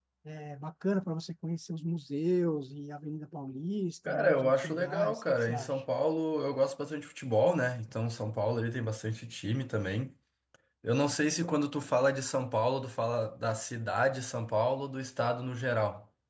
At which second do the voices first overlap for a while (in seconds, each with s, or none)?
4.0 s